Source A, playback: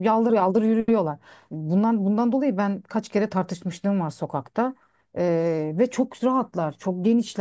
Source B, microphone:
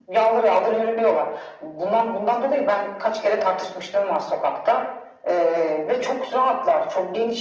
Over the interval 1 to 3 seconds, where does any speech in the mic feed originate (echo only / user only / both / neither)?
echo only